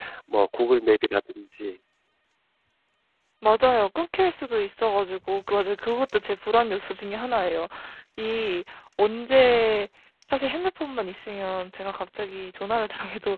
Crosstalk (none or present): none